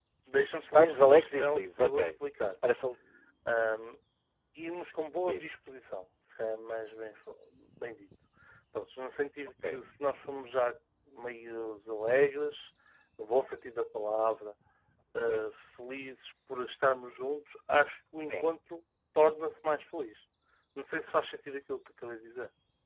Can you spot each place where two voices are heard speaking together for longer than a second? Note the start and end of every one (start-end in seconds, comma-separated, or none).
0.7-2.1